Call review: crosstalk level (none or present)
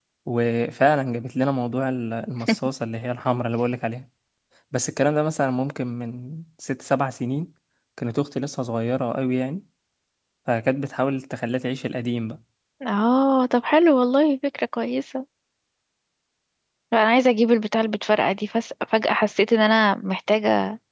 none